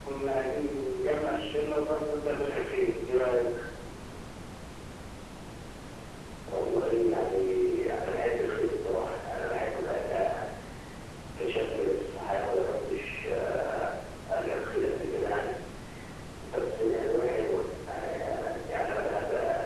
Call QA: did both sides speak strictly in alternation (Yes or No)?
Yes